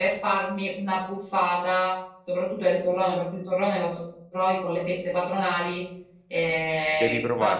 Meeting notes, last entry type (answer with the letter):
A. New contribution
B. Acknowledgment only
B